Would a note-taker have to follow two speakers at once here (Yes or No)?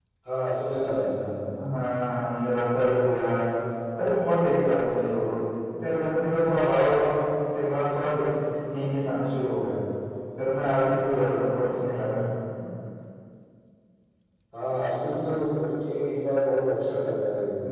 No